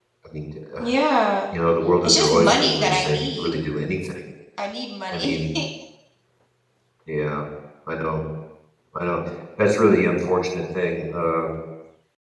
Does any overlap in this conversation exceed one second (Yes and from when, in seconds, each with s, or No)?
Yes, from 2.0 s